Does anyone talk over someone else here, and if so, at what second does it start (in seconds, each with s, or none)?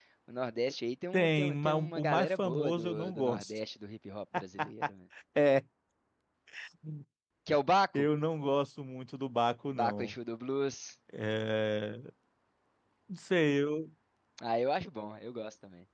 1.1 s